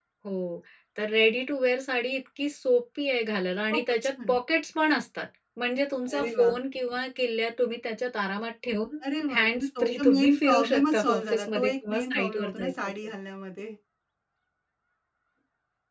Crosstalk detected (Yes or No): Yes